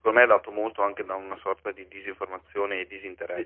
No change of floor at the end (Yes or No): No